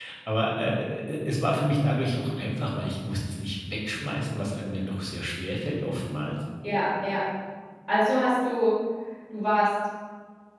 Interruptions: none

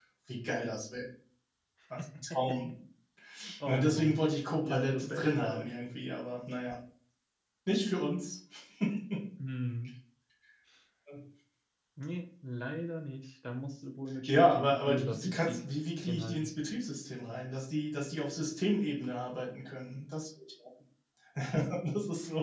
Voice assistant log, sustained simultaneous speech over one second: present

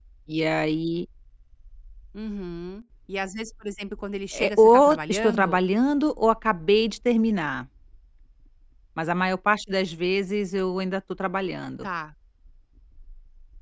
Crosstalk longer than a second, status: present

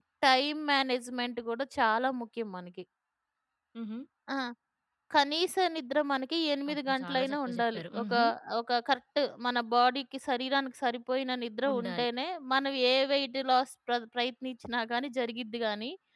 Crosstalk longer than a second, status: present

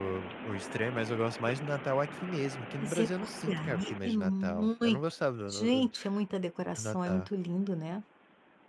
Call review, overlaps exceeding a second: present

